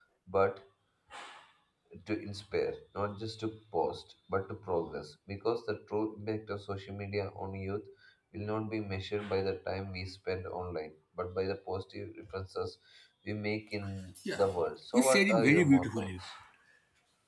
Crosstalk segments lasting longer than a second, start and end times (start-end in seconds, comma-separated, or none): 14.9-16.2